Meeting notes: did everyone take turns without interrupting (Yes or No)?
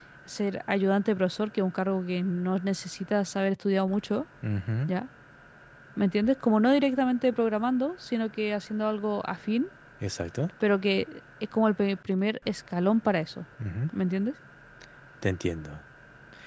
Yes